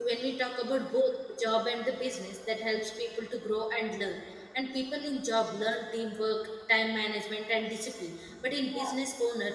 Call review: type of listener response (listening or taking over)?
listening